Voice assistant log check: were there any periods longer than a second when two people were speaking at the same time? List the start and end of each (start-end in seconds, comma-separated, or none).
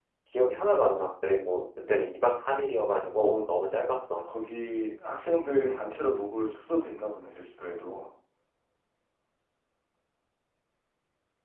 none